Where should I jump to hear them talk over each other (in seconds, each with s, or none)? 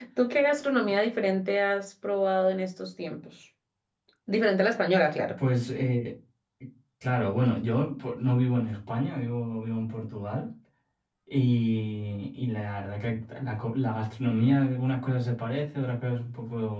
none